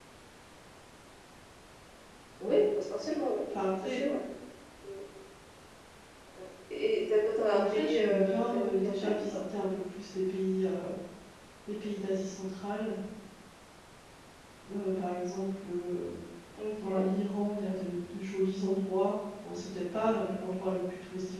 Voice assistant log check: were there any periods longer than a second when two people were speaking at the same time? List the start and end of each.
7.5-9.4

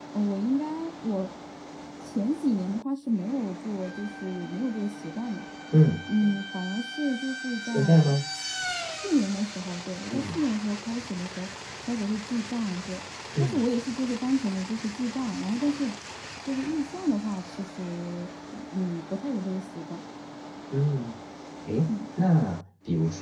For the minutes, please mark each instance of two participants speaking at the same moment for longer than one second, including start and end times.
none

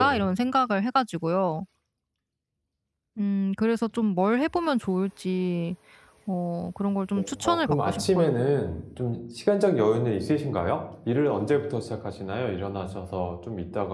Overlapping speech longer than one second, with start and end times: 7.2-8.4

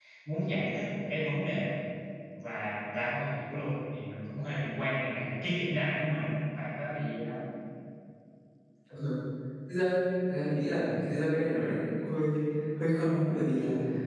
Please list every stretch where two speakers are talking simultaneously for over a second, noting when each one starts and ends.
none

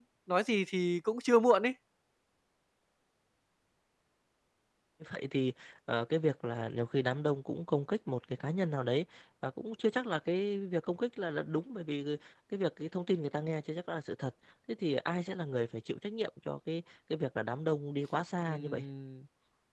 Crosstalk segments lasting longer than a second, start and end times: none

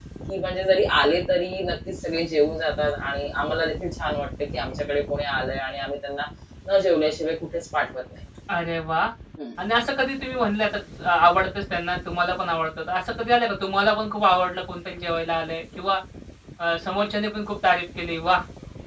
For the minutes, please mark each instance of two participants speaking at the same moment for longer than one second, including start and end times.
none

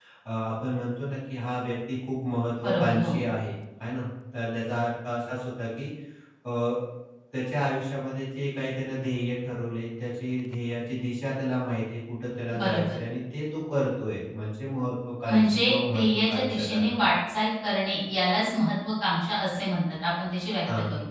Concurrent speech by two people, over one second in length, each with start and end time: 15.3-16.9

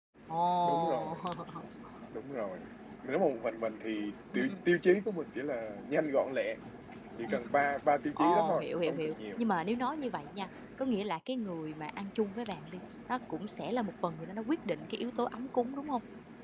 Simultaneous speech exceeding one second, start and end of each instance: 8.2-9.4

